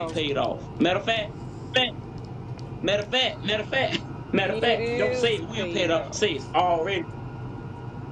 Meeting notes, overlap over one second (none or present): present